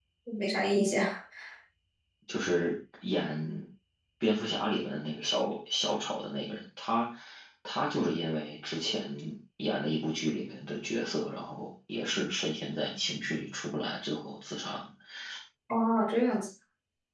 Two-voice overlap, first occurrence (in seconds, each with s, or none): none